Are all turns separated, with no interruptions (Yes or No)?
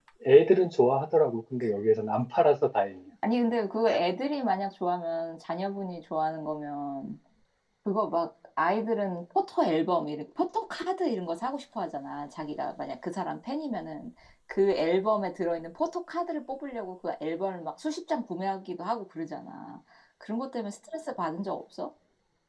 Yes